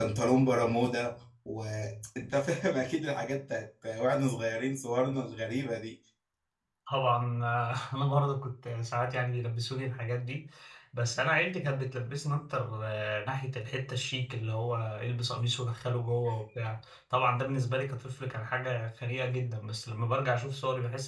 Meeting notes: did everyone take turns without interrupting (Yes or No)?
Yes